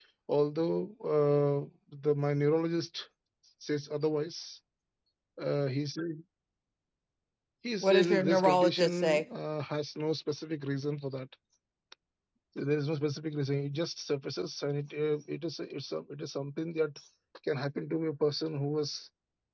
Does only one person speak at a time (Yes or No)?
No